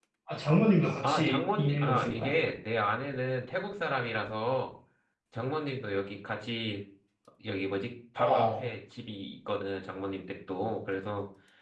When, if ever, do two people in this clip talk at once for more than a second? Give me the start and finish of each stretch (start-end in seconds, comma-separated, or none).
1.0-2.3